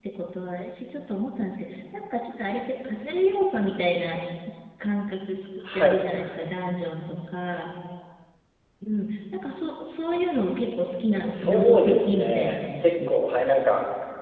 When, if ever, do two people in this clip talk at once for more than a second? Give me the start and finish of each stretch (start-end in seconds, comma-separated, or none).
11.3-13.2